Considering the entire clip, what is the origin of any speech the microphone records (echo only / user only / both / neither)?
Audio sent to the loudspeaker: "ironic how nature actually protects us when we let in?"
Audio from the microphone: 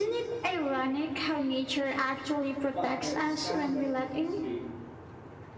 both